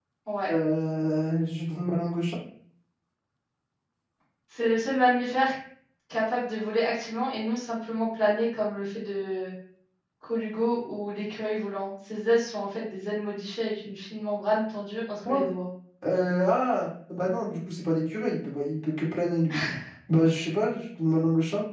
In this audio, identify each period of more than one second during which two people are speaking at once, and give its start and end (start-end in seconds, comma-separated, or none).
none